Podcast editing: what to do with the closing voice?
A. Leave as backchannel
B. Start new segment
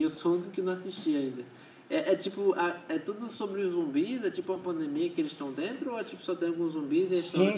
B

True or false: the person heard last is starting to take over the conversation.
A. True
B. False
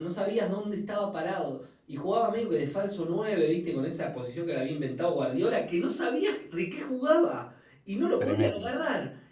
B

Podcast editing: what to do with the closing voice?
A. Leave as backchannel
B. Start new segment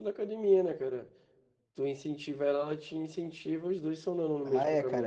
B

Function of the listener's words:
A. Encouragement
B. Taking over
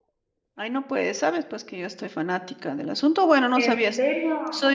A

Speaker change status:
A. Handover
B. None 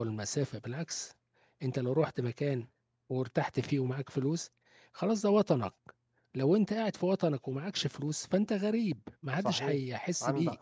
A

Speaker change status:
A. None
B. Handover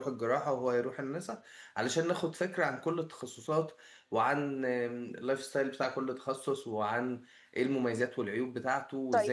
B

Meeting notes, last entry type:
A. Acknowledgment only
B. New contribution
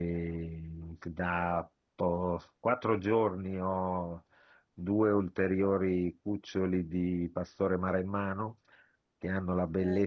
A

